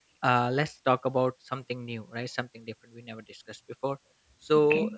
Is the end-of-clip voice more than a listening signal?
No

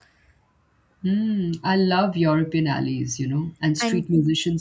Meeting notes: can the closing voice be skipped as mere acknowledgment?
Yes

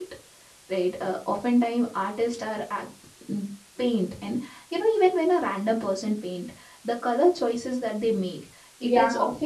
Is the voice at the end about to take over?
No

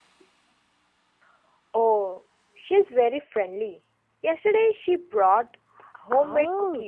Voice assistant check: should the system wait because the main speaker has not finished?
No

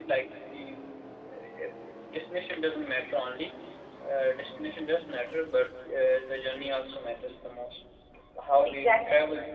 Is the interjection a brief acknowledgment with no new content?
Yes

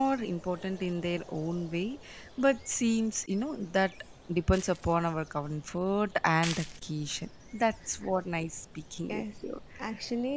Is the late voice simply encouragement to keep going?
No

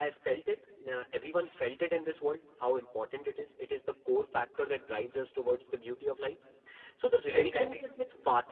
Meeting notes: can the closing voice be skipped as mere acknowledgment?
Yes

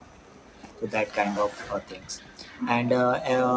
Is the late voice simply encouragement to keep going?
Yes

